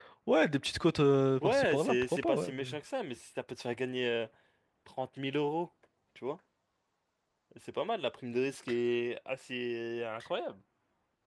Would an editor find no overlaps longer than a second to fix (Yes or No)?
No